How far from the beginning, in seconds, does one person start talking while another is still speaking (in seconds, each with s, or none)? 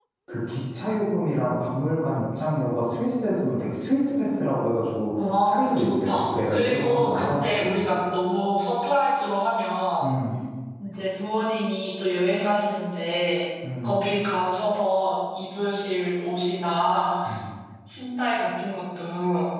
5.4 s